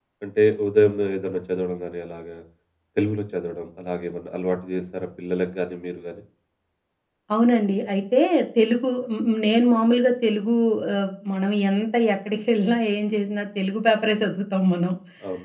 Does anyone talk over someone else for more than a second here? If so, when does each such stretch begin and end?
none

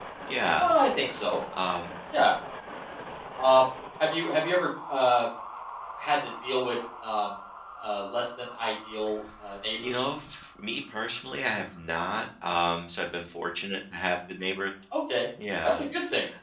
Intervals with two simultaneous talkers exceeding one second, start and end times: none

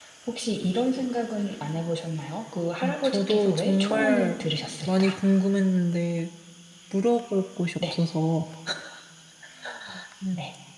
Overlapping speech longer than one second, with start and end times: 2.8-4.3

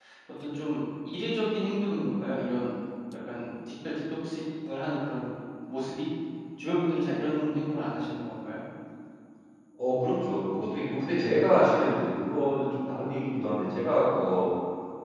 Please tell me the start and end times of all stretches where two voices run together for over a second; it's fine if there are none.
none

